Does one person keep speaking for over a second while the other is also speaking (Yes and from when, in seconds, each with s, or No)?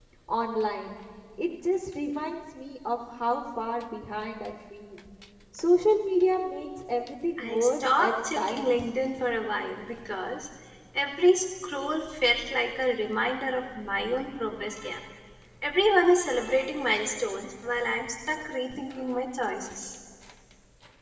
Yes, from 7.4 s